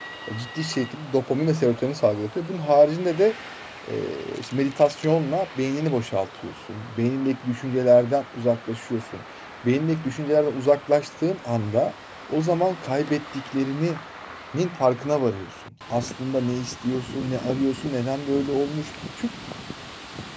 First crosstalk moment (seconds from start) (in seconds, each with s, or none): none